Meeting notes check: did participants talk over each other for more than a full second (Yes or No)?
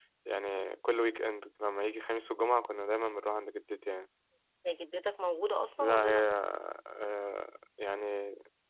No